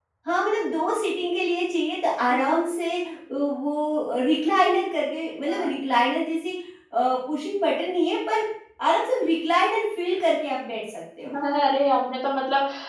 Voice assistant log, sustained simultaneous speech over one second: none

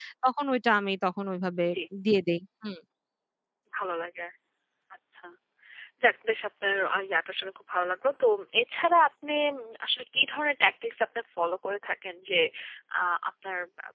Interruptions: none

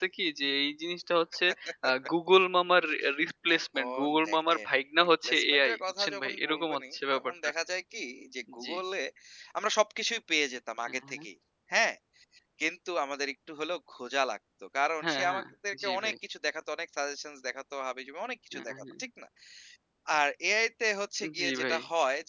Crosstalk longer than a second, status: present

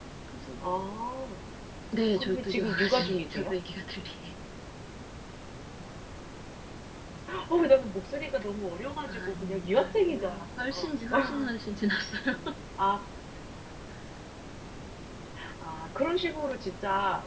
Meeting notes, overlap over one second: present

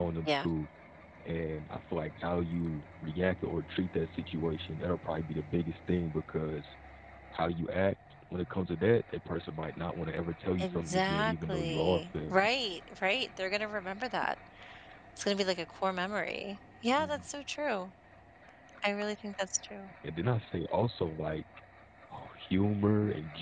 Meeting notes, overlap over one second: present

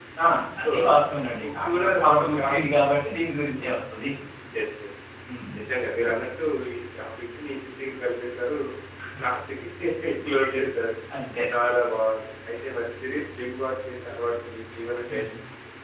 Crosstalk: present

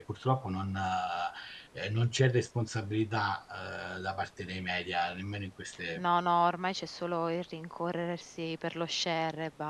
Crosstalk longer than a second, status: none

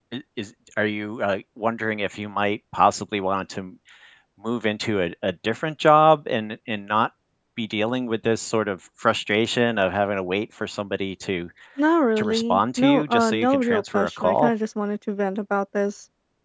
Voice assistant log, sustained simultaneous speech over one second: present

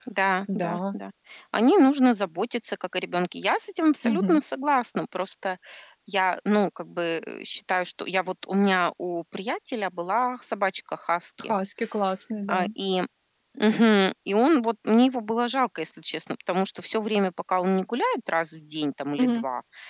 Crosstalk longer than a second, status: none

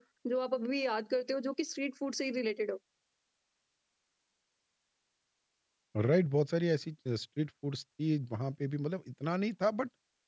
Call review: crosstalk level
none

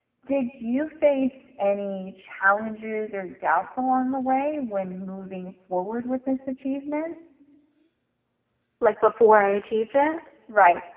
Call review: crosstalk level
none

